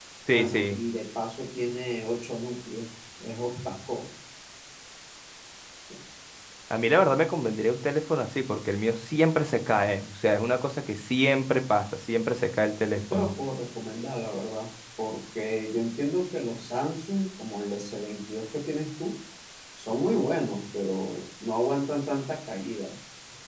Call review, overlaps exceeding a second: none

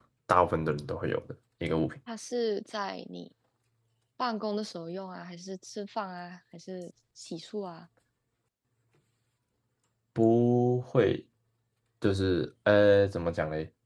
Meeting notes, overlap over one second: none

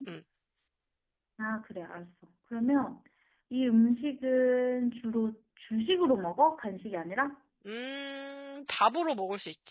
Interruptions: none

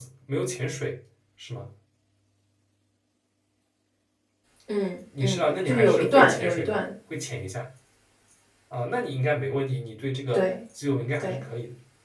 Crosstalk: present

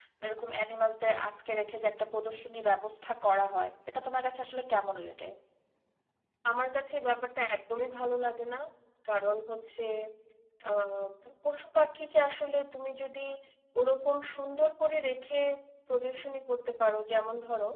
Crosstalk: none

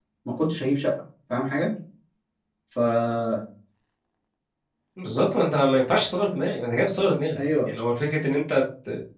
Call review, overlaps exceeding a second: none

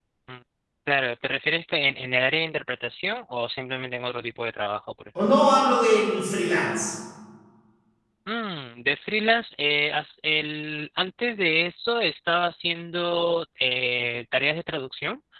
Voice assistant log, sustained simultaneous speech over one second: none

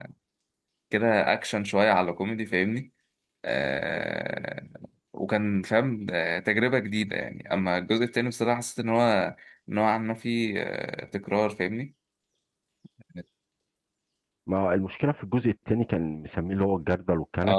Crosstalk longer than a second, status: none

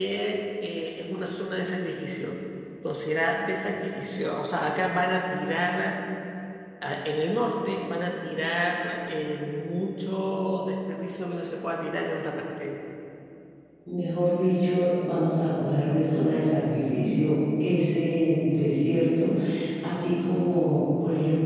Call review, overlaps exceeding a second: none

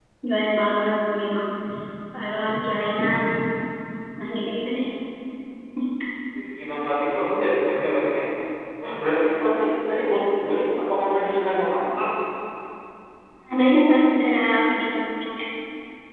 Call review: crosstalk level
none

